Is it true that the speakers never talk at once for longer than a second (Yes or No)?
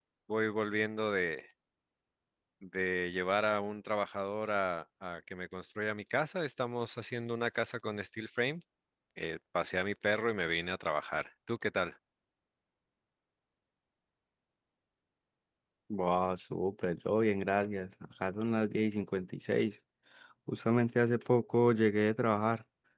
Yes